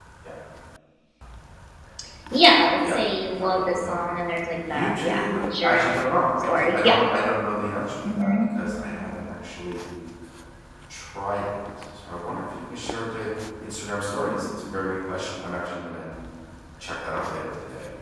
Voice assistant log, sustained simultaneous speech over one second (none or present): present